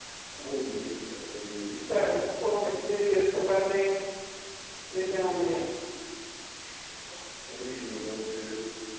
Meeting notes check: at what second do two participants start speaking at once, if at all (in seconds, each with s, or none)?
none